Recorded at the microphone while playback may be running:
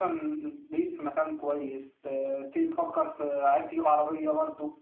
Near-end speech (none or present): none